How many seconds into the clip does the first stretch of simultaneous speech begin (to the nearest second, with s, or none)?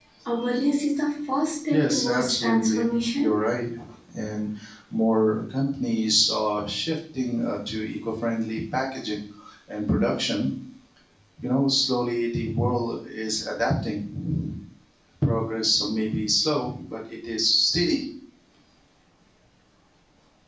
2 s